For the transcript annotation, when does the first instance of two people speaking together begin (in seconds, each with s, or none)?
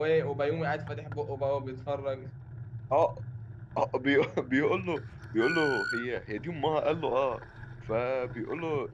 none